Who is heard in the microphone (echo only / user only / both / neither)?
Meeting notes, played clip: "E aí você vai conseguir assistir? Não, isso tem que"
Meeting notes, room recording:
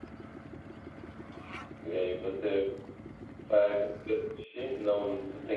echo only